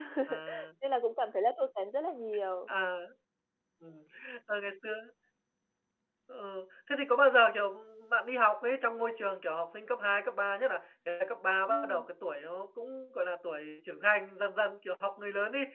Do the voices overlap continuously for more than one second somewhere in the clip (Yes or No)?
No